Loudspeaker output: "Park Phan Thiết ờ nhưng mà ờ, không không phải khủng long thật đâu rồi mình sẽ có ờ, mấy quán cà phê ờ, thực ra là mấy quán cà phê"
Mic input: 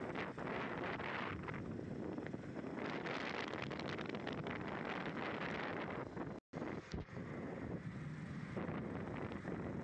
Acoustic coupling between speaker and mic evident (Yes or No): No